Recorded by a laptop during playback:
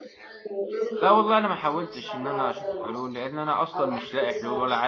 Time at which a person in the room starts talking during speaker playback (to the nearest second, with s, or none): 1 s